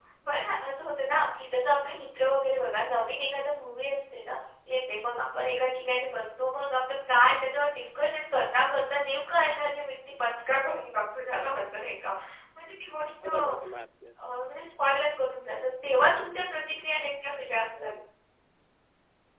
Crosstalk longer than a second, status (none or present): none